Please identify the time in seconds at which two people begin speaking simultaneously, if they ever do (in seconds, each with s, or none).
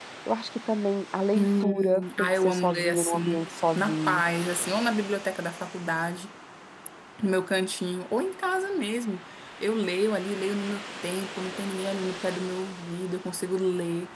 1.4 s